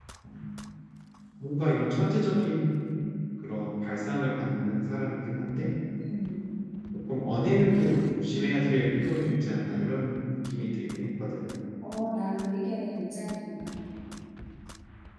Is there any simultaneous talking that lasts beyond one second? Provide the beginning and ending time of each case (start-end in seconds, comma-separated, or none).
none